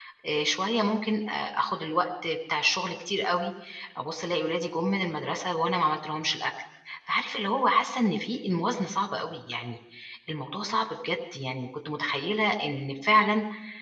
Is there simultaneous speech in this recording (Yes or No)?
No